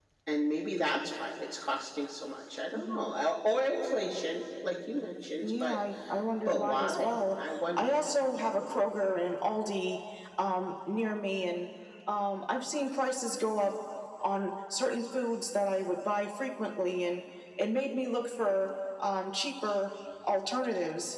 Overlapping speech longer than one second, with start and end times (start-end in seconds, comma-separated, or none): 6.4-8.1